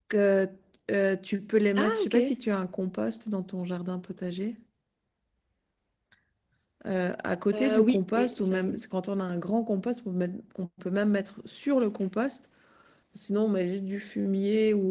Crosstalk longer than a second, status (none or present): present